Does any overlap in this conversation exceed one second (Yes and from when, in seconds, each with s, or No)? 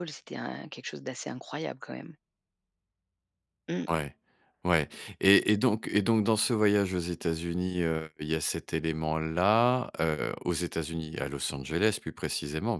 No